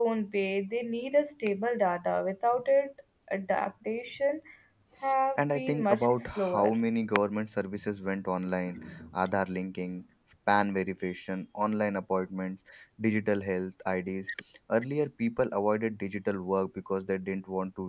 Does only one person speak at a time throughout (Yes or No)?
No